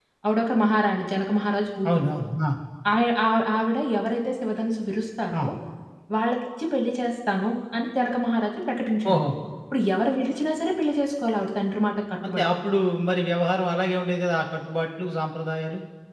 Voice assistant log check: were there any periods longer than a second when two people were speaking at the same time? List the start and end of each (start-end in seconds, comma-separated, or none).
none